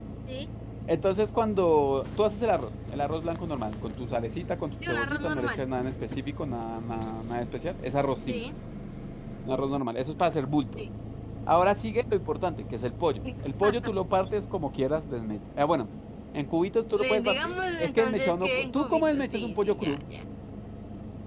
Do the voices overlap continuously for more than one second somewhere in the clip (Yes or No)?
Yes